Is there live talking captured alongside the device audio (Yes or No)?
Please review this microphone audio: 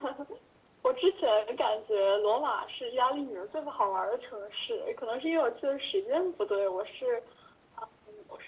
No